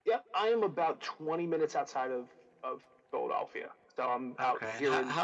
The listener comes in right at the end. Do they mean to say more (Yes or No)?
Yes